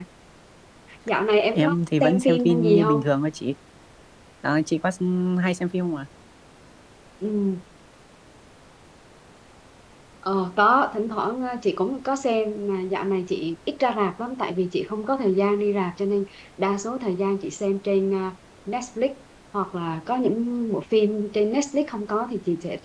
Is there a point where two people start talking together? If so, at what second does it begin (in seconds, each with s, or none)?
1.5 s